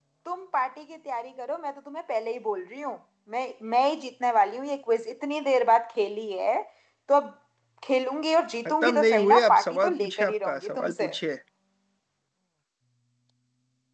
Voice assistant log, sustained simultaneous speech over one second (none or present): present